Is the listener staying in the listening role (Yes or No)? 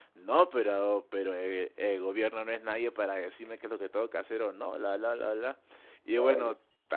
Yes